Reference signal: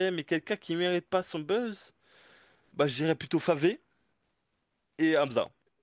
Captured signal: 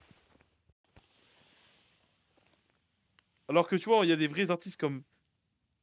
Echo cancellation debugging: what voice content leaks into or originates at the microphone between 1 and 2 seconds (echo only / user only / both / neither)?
neither